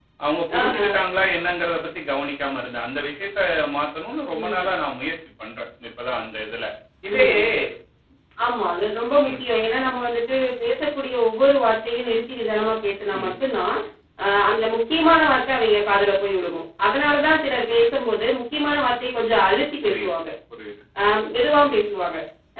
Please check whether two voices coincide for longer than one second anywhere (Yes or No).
No